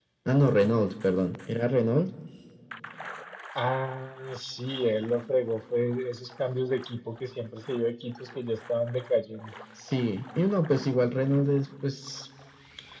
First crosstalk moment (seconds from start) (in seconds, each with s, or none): none